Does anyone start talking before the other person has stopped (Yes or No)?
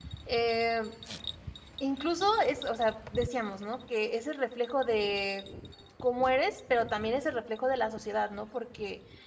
No